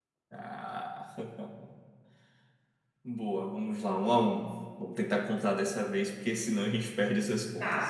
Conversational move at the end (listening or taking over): taking over